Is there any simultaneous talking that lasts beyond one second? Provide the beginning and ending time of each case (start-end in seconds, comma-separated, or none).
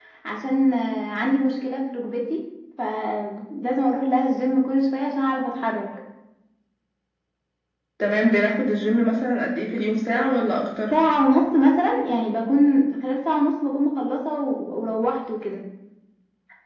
none